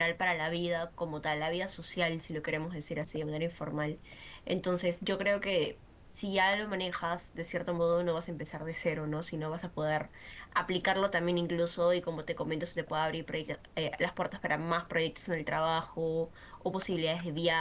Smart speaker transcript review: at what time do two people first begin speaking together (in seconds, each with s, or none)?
none